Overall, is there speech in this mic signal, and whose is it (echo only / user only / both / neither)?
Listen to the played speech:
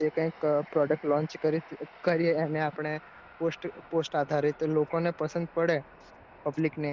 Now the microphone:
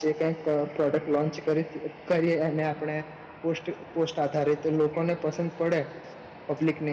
echo only